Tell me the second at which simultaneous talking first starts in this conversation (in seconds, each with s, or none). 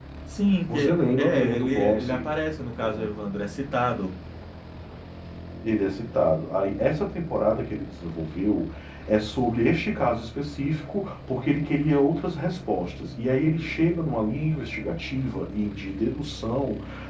0.7 s